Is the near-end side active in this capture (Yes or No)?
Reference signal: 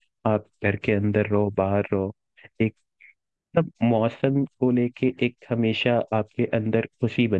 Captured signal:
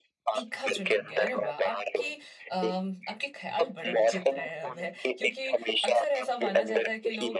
Yes